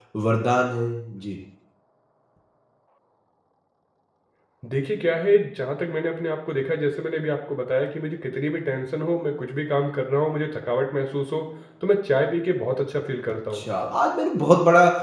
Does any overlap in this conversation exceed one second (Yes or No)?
No